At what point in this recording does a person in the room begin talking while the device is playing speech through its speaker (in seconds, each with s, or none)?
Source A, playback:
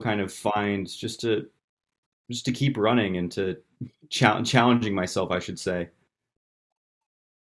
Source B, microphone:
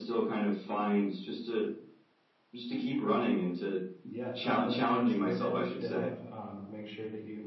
4.1 s